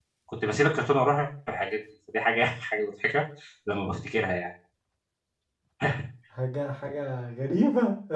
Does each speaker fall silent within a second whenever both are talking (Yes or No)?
Yes